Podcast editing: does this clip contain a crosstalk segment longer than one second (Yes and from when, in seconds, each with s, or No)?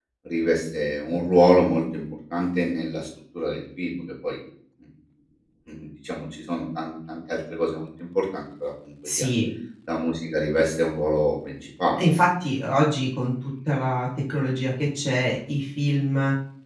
No